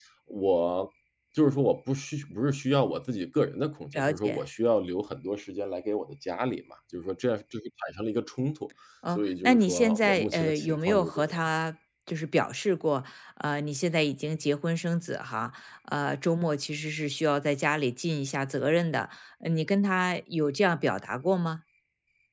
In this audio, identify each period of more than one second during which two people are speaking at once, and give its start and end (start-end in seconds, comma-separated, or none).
9.2-11.4